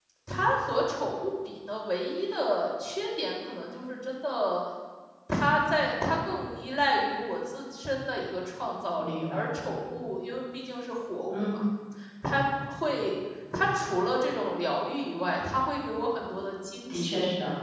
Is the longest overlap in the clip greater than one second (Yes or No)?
No